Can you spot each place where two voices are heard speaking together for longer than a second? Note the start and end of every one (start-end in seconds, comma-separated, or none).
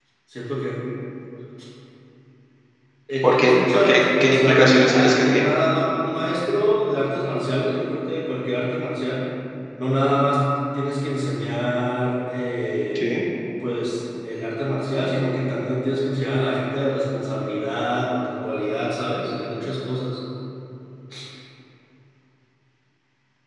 3.2-5.5